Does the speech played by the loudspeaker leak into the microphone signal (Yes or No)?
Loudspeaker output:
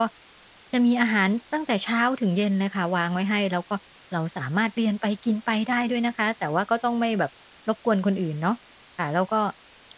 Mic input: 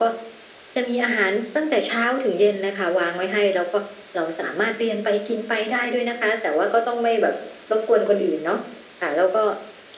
Yes